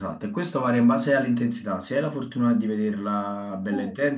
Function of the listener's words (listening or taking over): listening